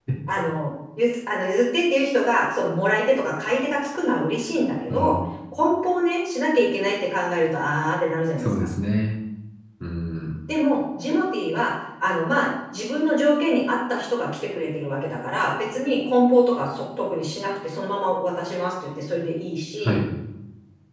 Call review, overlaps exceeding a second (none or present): none